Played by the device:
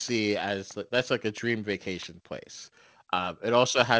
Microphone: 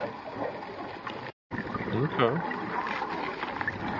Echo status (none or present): none